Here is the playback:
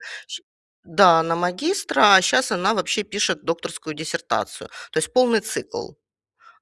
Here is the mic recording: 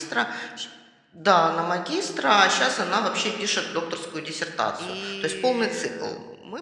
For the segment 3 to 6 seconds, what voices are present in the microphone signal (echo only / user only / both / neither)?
both